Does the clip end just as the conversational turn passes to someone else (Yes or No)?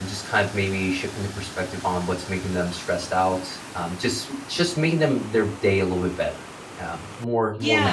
Yes